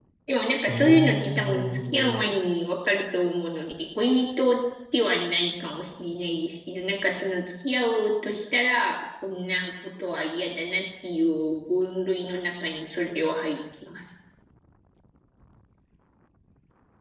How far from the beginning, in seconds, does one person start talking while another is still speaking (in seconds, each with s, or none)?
0.7 s